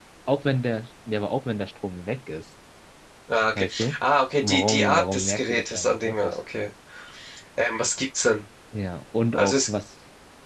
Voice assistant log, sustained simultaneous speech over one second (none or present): present